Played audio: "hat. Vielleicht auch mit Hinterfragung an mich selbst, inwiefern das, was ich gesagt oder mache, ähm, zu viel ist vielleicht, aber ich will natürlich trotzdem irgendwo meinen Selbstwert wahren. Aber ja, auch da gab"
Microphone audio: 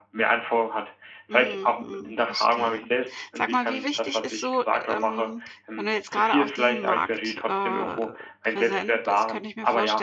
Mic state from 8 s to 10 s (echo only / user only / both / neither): both